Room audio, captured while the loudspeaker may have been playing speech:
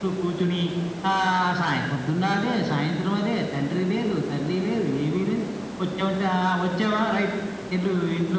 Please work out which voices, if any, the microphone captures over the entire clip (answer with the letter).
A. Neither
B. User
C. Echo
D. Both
C